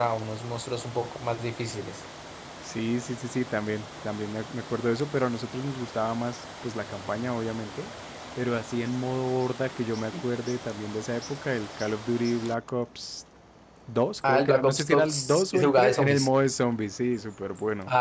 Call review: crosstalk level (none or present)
present